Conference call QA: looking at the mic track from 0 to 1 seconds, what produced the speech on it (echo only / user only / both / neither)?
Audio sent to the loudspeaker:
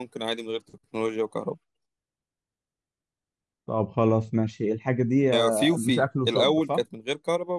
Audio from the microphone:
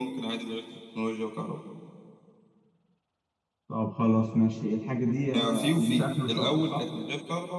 echo only